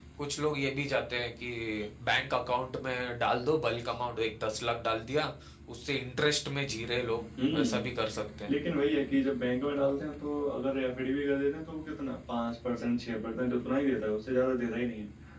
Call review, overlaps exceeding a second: none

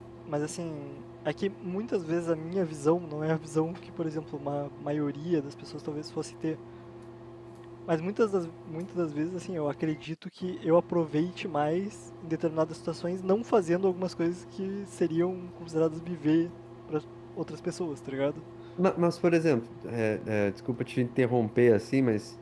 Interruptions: none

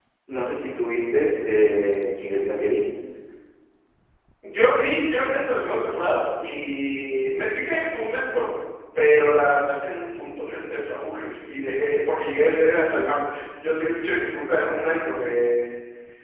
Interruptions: none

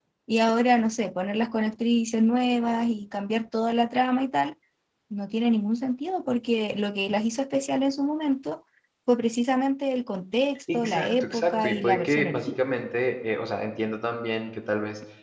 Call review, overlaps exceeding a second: present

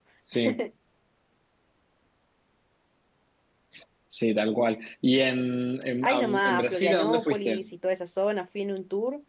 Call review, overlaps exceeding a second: present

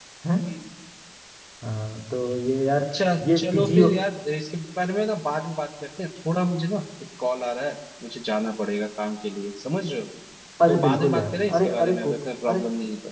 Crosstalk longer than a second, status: present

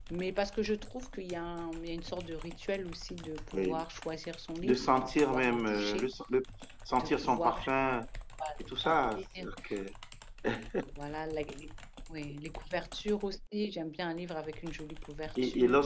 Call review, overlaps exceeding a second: present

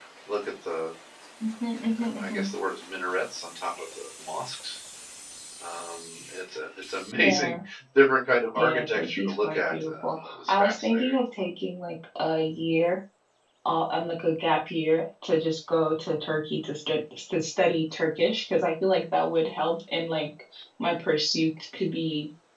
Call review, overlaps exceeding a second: present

